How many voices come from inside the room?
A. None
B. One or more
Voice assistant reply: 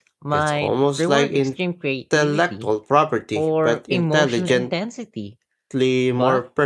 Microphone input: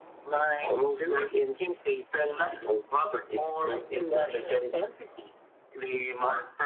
A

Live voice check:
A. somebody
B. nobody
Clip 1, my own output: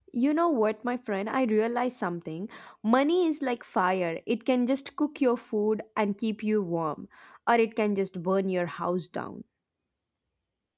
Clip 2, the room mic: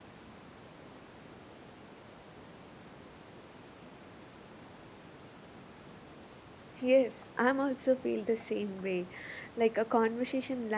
A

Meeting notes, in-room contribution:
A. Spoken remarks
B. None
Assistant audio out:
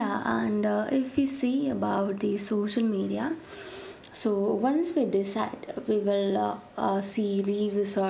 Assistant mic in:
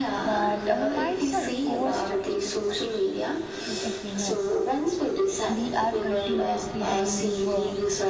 A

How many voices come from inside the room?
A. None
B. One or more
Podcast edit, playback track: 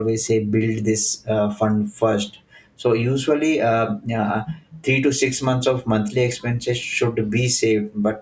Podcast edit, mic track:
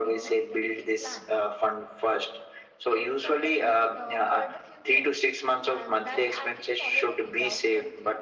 B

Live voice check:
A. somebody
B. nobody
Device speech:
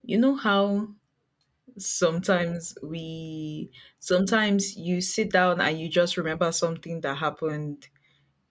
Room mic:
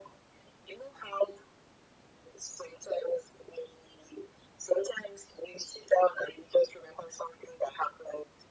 B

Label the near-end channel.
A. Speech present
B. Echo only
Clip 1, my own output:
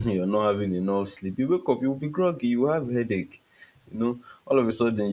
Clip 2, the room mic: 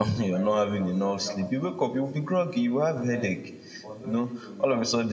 A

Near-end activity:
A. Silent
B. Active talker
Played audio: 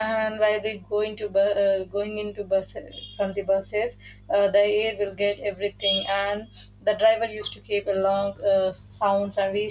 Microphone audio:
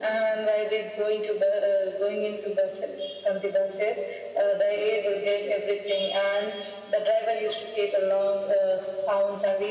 A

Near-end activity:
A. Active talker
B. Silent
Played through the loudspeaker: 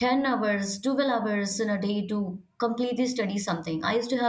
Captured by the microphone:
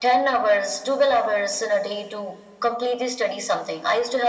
B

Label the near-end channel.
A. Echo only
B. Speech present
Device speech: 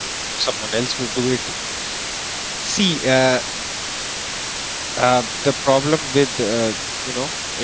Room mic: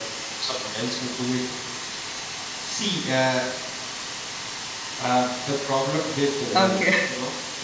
B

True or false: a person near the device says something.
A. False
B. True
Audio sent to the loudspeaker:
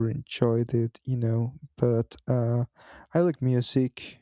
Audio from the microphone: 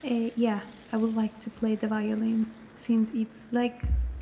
B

